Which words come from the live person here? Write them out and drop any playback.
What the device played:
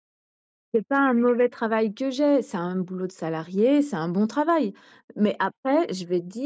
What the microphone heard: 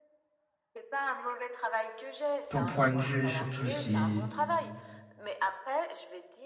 ton point de vue, surtout si

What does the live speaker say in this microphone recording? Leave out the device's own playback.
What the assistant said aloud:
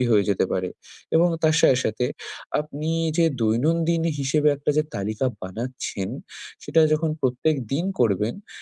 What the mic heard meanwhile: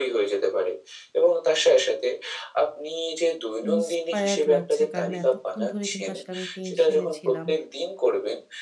ইন্সপায়ার্ড লাগছে। কারণ এতক্ষণ ধরে কিন্তু আসলে আমি টেনশনে ছিলাম

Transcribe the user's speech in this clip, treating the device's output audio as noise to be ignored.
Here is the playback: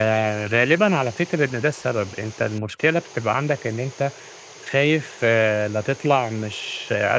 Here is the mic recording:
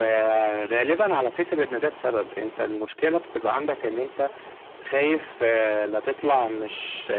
none

